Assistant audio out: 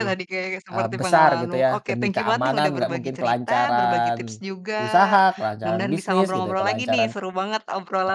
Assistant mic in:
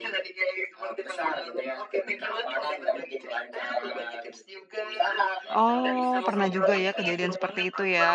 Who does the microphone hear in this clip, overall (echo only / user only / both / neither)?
both